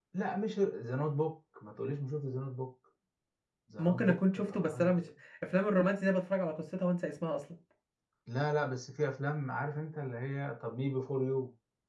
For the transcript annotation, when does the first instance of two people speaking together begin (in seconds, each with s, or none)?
3.8 s